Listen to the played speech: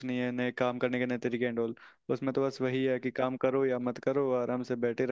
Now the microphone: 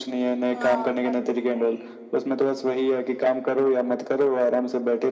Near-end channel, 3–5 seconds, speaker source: echo only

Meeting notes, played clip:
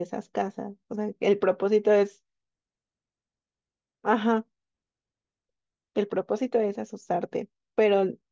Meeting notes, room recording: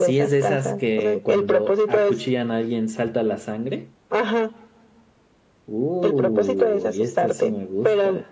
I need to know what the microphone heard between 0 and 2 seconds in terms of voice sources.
both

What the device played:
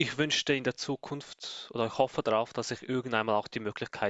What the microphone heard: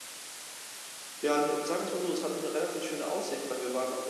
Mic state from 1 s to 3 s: user only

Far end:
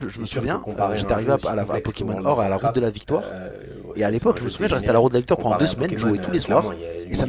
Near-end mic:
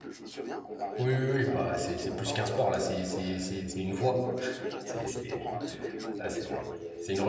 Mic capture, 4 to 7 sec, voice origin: both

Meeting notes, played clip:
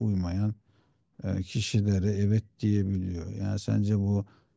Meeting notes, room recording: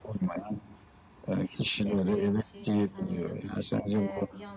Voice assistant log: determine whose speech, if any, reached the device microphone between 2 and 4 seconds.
both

